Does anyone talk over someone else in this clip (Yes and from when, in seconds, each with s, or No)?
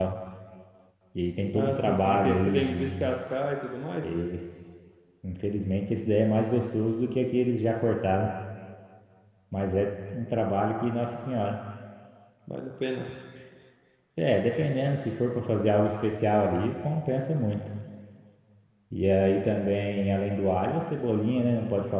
Yes, from 1.5 s